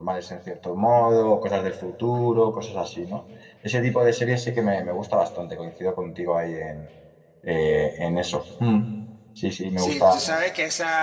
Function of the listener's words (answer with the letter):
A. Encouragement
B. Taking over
B